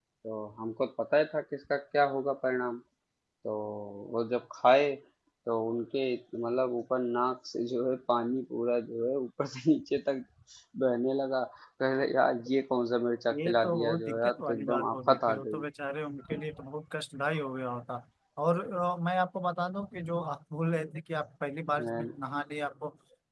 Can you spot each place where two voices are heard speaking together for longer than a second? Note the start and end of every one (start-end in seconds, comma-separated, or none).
13.4-15.6